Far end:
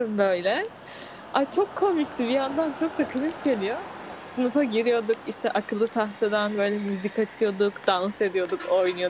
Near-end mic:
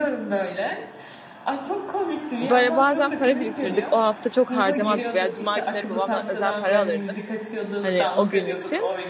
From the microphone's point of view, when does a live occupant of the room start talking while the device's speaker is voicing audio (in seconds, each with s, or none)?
2.4 s